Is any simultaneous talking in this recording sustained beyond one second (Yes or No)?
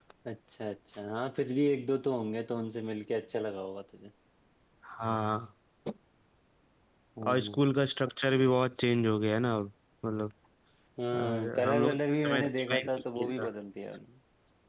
Yes